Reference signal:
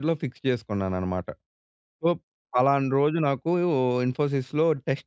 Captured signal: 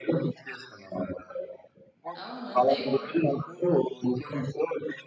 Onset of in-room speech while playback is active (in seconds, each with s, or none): 2.2 s